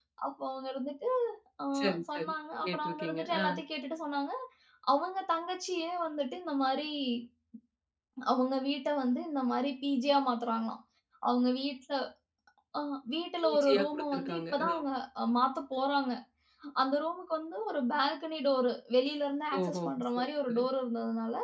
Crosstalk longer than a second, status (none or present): present